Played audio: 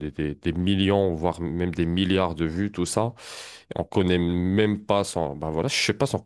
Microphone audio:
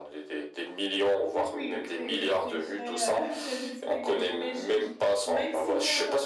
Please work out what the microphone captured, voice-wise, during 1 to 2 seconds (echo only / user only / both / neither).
both